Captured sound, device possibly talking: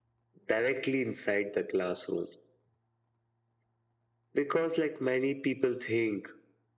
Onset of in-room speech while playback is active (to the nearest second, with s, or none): none